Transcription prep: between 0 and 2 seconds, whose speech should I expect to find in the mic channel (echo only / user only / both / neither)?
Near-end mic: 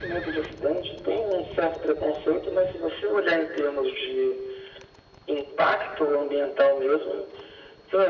echo only